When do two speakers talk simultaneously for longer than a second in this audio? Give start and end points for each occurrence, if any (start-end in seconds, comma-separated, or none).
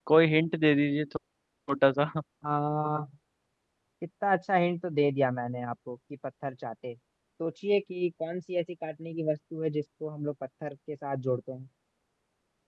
none